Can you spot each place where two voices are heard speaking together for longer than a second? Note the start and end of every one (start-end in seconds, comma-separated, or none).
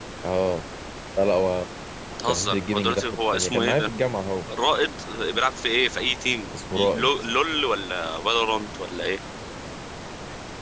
2.3-3.9